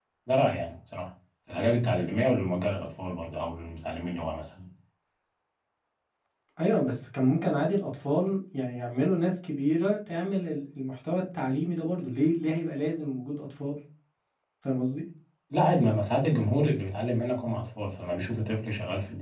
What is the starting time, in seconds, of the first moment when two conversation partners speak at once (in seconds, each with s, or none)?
none